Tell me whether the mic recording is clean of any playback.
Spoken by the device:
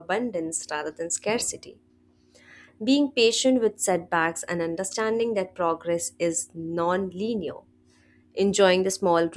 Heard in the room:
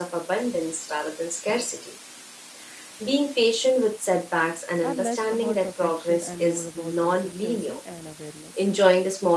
No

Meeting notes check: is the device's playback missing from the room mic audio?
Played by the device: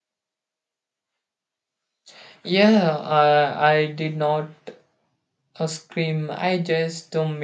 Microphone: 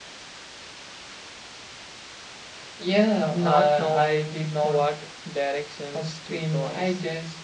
No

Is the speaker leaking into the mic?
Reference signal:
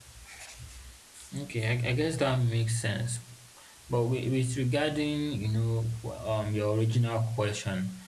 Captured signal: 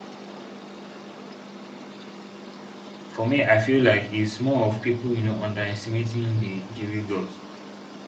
No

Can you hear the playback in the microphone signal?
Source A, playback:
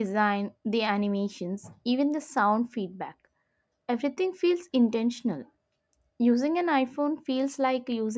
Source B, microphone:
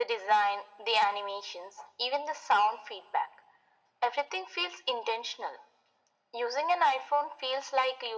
Yes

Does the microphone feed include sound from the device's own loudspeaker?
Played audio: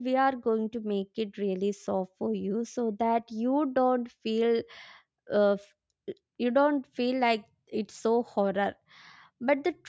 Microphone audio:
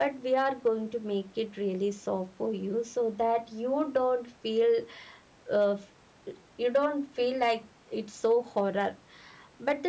Yes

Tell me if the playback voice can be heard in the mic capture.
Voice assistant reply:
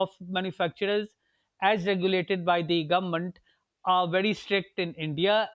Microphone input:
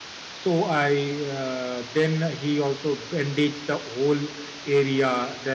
No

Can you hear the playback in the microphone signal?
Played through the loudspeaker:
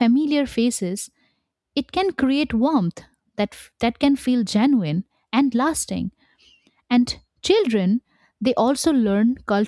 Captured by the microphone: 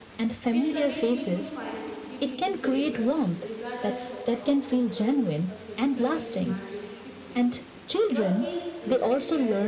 Yes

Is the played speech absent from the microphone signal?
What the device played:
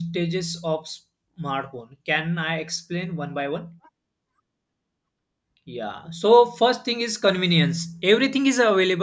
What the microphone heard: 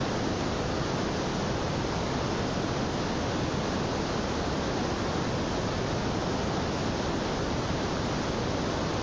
Yes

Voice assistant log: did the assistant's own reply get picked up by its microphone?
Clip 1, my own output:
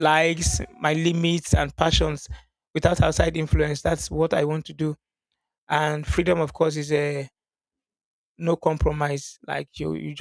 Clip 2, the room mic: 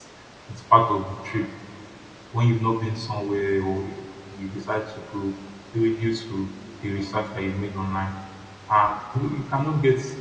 No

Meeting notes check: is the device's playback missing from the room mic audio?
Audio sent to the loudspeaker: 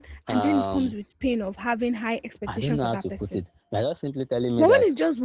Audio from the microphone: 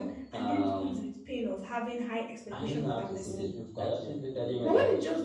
No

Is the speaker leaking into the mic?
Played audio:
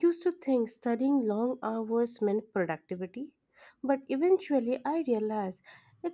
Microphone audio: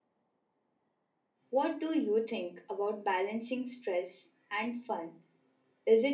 No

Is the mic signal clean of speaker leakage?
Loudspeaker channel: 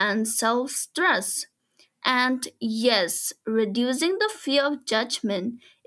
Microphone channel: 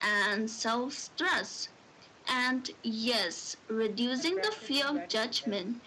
No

